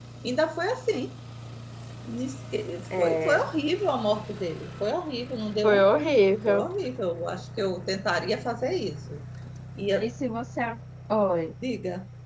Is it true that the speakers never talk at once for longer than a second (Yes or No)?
Yes